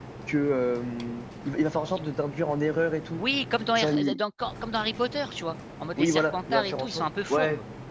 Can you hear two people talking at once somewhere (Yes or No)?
Yes